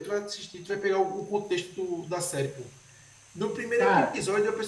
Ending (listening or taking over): listening